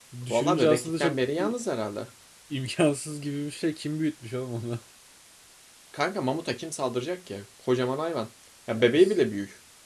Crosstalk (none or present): present